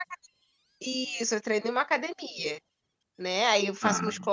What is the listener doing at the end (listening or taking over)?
listening